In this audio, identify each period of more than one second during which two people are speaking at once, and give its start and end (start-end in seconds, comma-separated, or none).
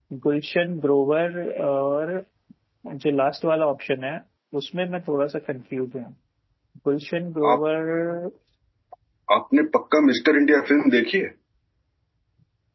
none